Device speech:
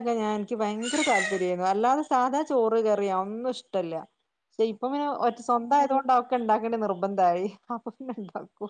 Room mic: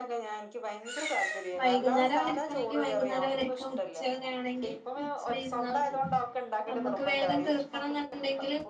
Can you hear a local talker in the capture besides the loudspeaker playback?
Yes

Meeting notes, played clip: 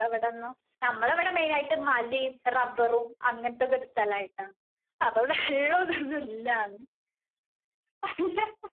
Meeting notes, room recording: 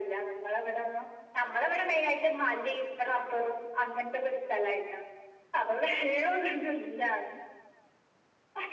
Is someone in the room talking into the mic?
No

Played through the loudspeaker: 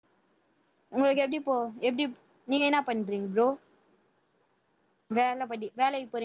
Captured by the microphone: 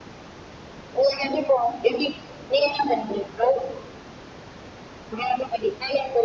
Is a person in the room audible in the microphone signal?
No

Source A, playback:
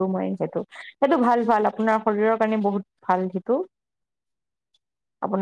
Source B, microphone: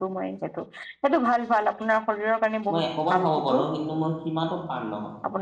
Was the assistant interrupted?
Yes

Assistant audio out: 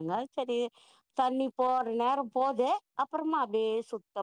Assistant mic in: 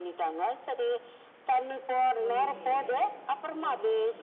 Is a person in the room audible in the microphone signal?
Yes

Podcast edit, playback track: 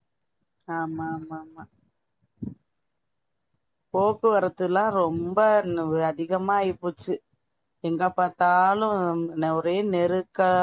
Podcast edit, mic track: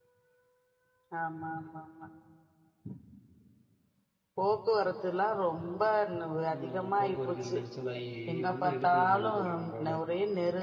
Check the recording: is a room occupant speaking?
Yes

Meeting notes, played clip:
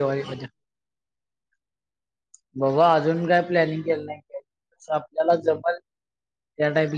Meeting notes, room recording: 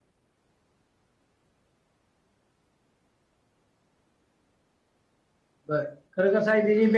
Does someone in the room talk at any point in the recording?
Yes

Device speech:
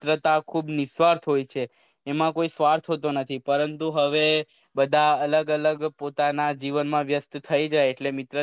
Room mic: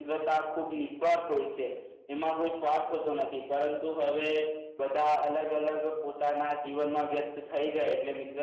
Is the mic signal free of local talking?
Yes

